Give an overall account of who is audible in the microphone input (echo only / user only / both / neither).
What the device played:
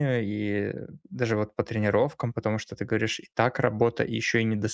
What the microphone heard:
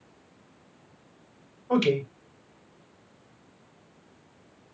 user only